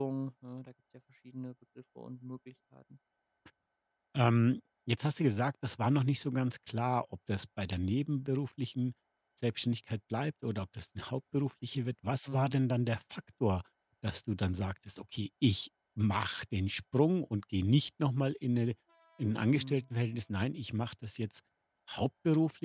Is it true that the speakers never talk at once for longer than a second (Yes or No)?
Yes